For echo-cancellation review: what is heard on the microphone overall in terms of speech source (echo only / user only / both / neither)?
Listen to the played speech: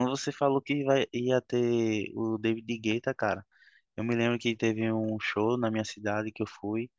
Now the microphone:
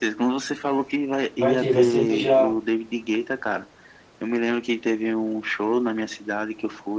both